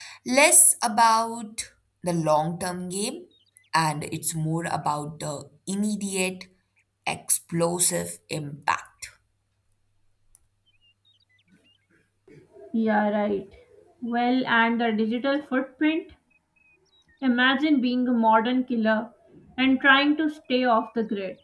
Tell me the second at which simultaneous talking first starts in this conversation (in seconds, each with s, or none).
none